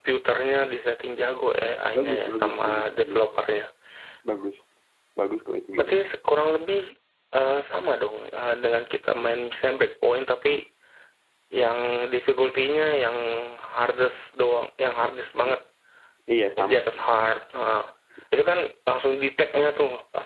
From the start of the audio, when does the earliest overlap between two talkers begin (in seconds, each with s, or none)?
1.9 s